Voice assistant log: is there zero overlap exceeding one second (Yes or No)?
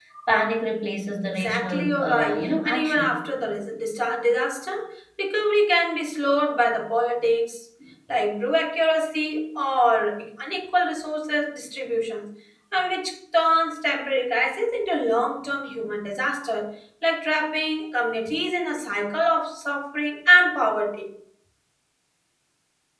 No